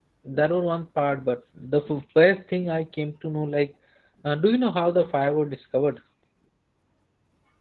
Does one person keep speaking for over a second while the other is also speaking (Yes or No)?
No